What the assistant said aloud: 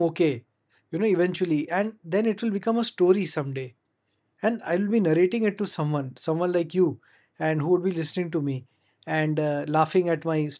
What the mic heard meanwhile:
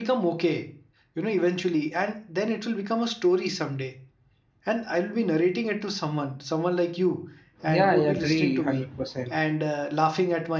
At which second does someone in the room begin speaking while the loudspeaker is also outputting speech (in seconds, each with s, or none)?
7.7 s